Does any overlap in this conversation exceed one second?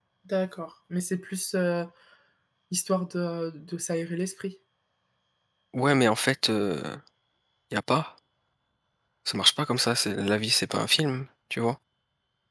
No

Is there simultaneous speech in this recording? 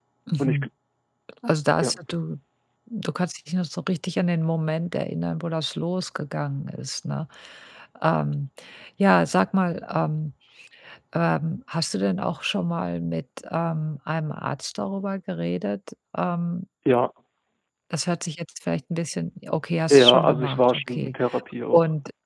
Yes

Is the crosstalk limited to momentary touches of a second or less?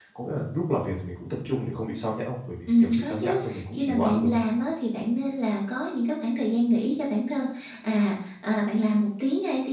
No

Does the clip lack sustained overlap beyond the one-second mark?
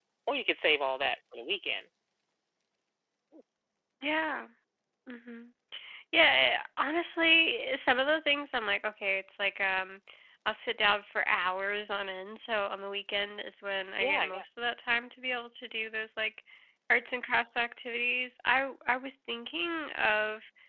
Yes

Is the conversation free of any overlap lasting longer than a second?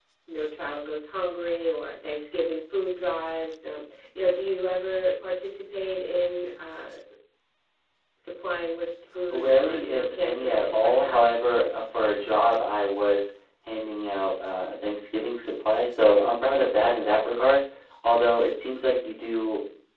No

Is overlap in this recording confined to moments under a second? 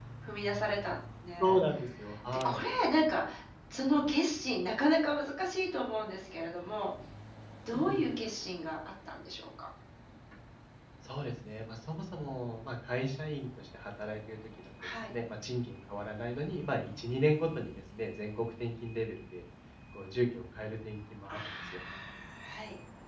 Yes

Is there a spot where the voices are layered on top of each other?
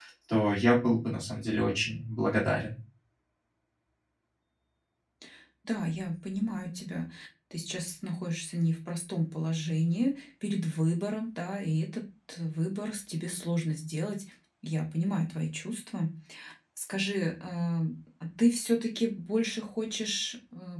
No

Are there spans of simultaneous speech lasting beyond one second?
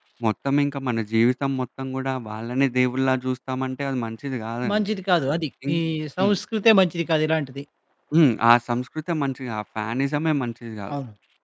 No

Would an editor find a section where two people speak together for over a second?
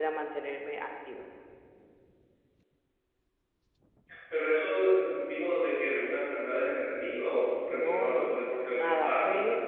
Yes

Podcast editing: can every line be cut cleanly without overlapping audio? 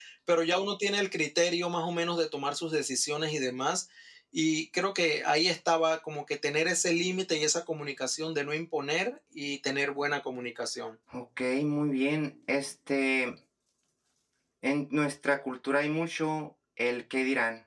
Yes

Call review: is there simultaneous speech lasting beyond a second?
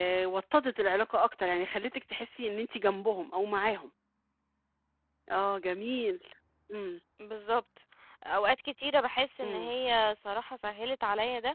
No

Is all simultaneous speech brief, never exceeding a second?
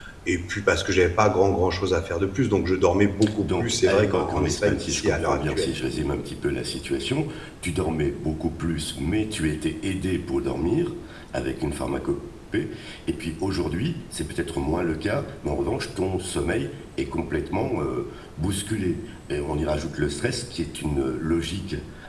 No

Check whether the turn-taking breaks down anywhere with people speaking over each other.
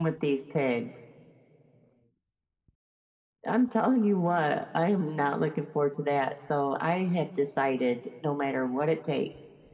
No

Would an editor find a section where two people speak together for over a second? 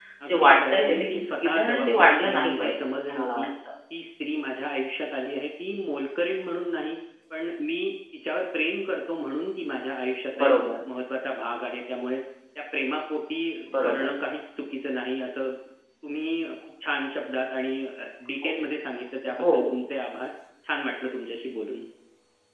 Yes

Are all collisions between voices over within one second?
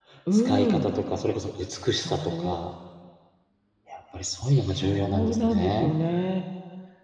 No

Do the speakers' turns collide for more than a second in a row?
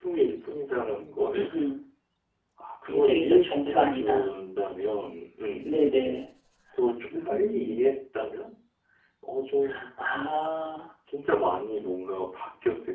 Yes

